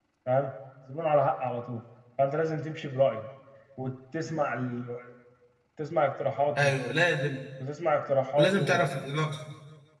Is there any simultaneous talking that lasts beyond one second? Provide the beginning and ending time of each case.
none

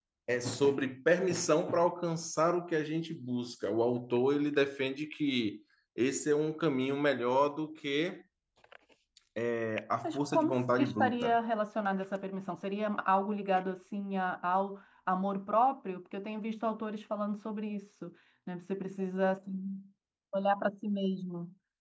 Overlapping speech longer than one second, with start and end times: 10.0-11.4

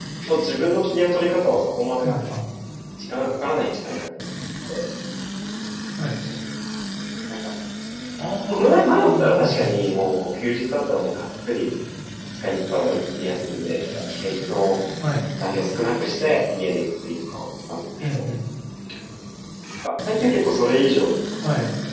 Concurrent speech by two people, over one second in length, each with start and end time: 8.5-9.8

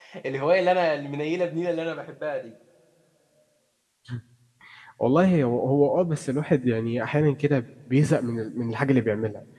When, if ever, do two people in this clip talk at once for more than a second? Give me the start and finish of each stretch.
none

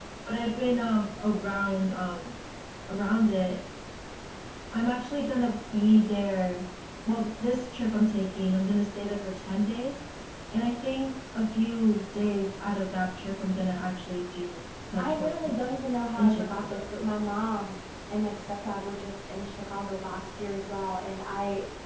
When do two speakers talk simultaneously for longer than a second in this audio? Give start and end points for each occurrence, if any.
15.0-16.8

